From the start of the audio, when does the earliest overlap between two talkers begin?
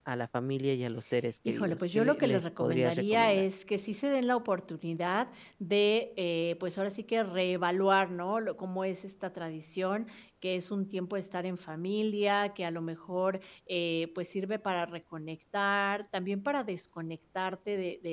1.4 s

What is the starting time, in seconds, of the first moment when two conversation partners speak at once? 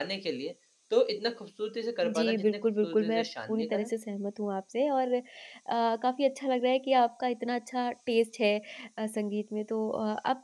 2.0 s

